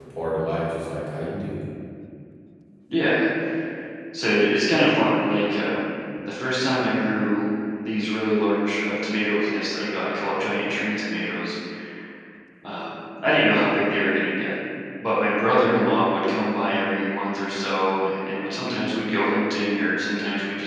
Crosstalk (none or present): none